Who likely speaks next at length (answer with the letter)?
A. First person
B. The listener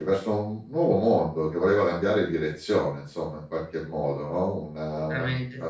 A